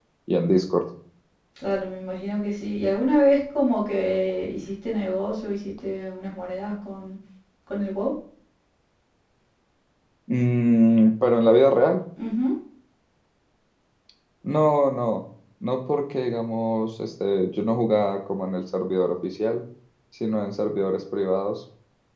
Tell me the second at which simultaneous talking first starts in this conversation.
none

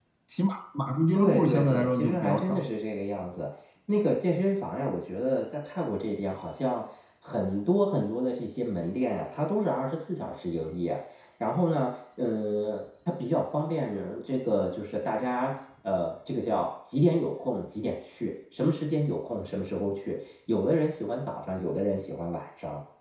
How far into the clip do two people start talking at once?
1.1 s

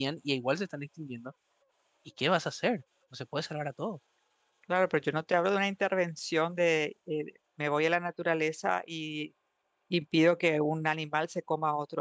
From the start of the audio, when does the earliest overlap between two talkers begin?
none

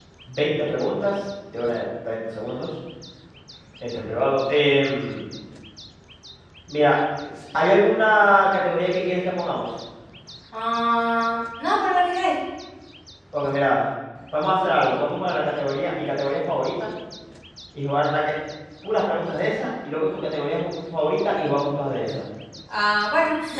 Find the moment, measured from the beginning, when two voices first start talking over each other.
none

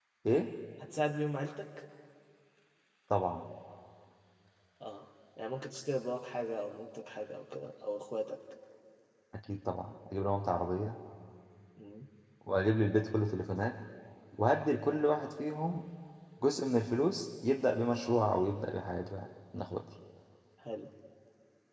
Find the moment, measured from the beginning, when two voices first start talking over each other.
none

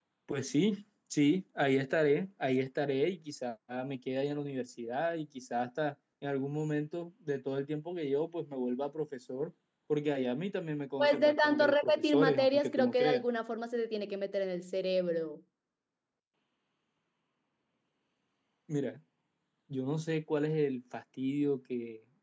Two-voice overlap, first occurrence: 11.0 s

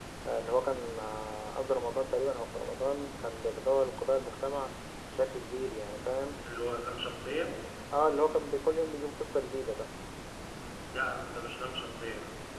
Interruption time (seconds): none

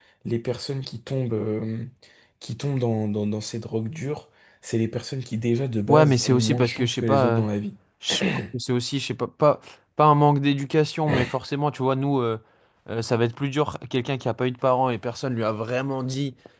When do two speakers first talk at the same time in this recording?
5.9 s

